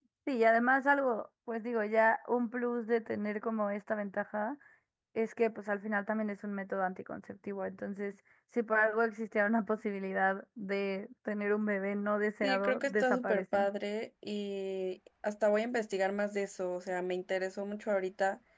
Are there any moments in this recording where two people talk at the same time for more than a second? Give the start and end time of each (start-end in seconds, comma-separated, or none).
12.4-13.7